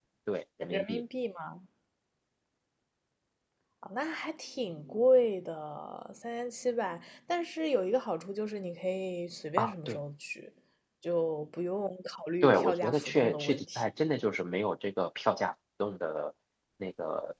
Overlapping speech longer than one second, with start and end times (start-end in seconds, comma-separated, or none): 12.4-13.9